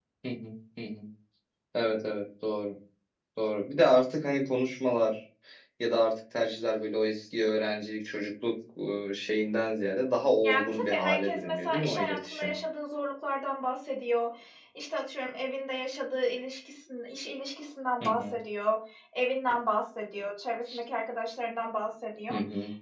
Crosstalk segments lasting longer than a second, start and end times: 10.4-12.6

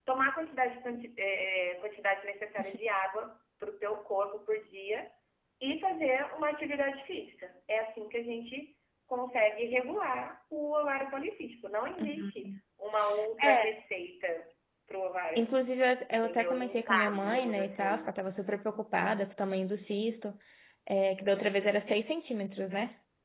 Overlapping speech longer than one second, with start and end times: 16.1-18.1

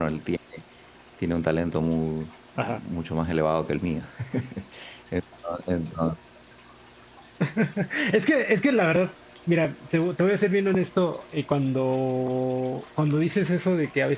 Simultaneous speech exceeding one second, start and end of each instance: none

